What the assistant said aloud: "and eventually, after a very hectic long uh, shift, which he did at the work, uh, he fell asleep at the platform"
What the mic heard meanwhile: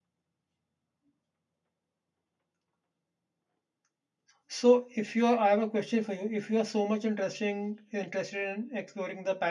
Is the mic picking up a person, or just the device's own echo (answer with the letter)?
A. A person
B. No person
A